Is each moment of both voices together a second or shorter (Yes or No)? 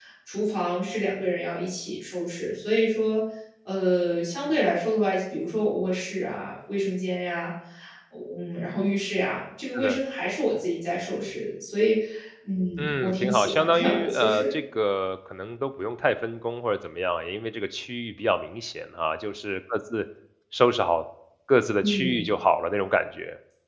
No